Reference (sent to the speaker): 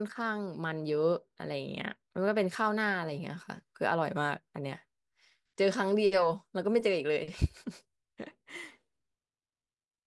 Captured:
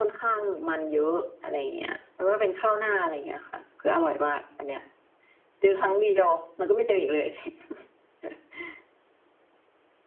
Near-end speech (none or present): none